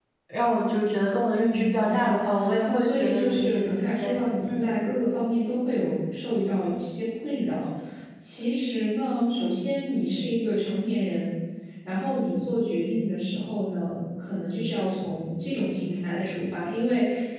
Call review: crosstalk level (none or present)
present